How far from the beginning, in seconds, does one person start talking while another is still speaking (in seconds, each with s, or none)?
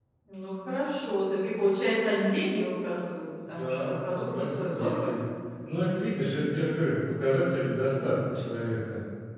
3.5 s